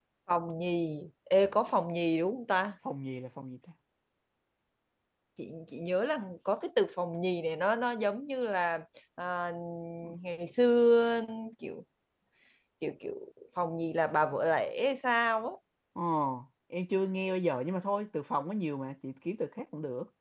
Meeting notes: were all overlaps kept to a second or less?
Yes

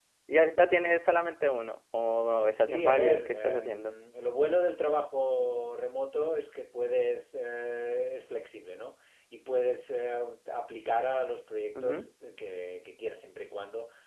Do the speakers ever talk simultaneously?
Yes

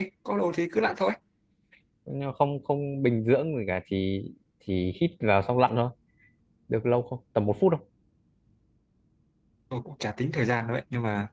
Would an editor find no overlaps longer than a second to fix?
Yes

